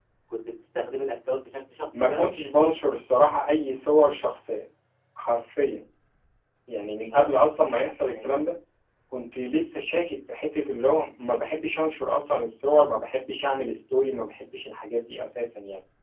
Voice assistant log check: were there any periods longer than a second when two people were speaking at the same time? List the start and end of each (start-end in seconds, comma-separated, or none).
none